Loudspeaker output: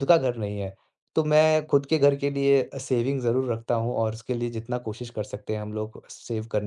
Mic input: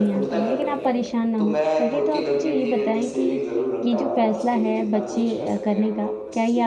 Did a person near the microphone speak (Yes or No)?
Yes